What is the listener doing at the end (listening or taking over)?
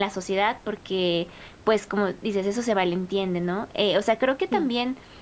listening